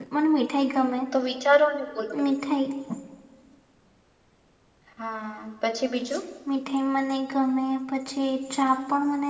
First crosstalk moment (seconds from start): none

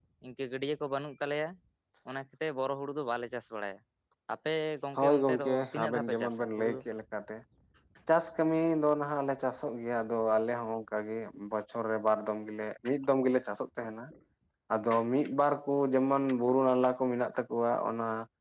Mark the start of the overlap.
5.0 s

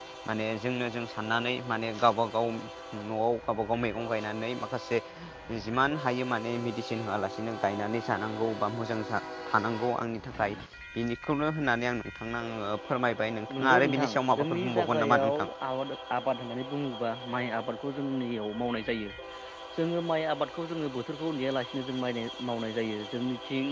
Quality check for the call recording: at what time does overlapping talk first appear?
13.6 s

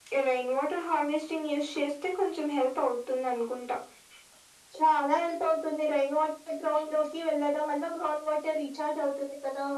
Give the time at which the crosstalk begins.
none

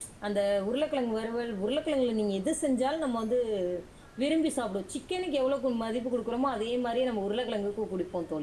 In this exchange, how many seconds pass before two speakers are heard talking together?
none

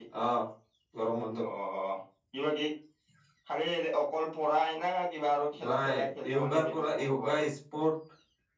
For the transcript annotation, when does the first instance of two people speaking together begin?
5.6 s

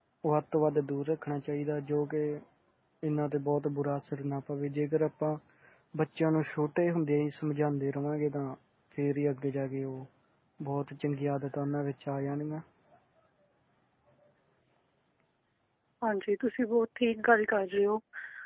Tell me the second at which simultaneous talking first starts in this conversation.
none

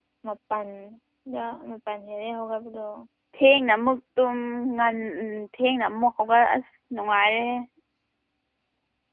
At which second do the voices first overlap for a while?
none

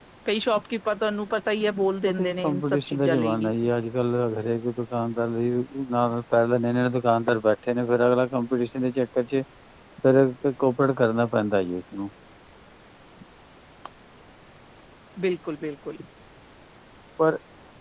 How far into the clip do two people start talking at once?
2.1 s

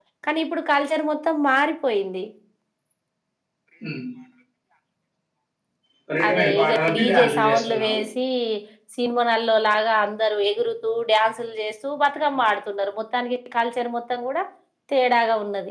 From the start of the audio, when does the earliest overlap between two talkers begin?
6.3 s

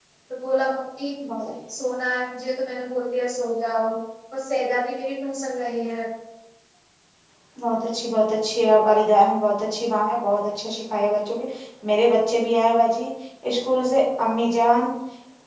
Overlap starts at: none

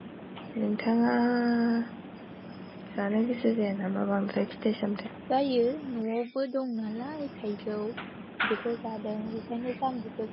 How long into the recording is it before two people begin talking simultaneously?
none

